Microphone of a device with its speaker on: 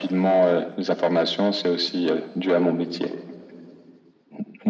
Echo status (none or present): present